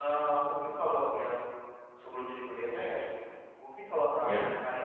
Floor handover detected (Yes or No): No